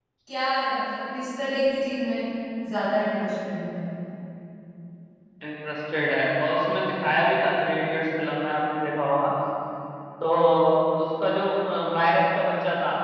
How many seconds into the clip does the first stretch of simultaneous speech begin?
none

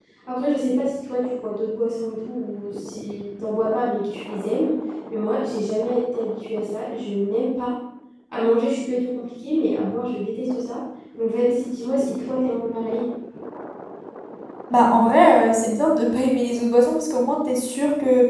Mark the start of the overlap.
none

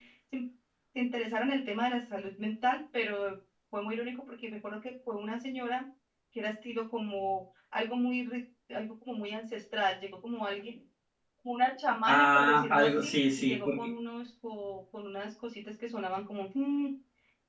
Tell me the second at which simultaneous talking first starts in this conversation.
12.1 s

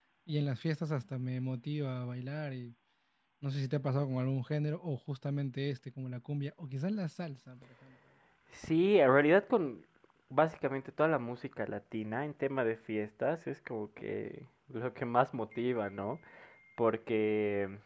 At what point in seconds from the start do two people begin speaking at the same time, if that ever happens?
none

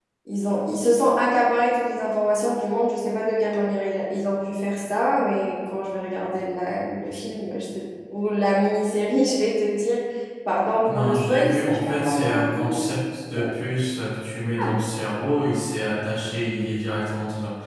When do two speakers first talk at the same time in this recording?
10.9 s

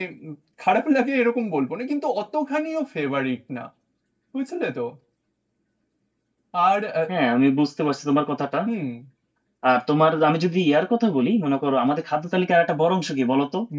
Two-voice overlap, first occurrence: none

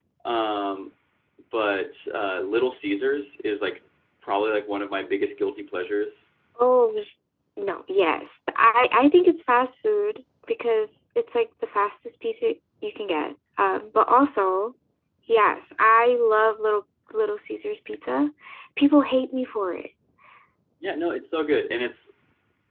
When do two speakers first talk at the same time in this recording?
none

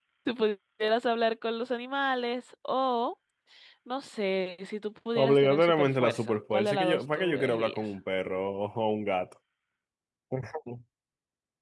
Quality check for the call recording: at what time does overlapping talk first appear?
5.2 s

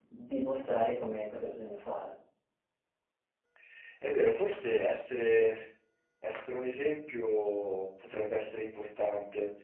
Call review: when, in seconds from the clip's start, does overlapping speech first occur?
none

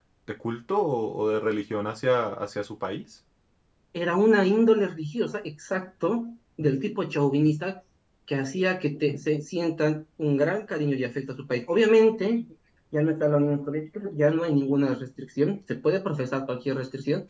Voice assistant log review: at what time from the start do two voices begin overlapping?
none

